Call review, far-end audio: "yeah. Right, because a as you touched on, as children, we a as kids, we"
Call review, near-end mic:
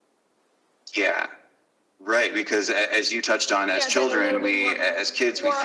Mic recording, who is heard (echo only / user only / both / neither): both